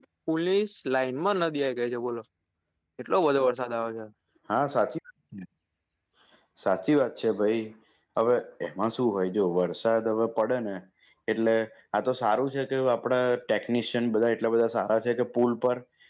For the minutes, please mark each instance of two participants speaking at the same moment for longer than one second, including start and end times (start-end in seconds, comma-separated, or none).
none